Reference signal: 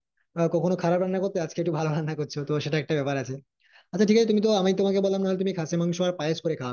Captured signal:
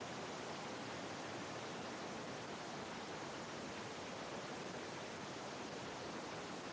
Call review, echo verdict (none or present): none